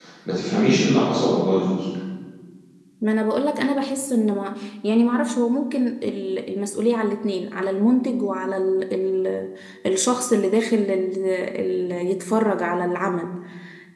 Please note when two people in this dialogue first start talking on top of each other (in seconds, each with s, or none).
none